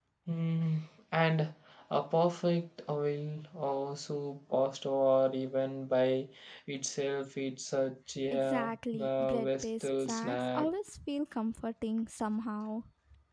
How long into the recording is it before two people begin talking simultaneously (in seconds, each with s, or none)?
8.3 s